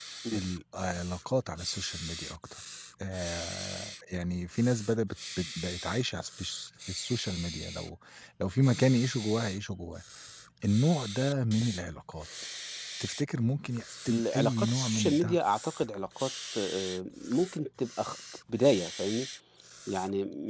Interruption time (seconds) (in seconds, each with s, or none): 14.1 s